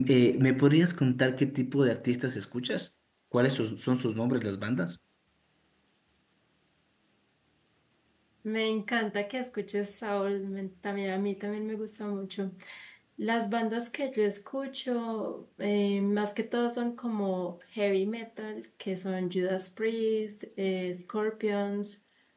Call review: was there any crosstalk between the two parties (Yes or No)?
No